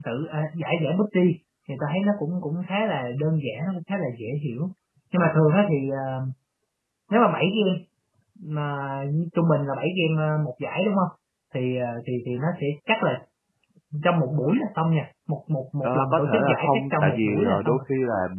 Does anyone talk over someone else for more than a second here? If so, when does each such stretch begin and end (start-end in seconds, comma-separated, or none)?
15.8-17.8